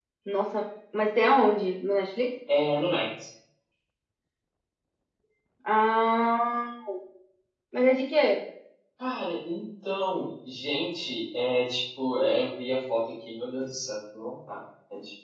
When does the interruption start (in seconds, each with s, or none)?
none